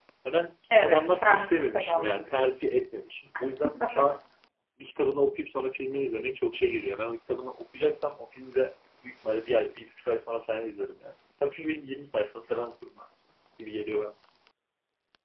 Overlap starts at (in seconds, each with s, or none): 0.8 s